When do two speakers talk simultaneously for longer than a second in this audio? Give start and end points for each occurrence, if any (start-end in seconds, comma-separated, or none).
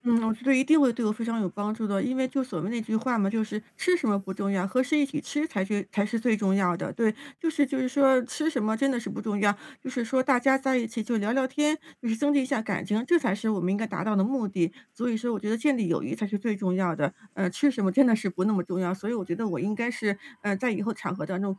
none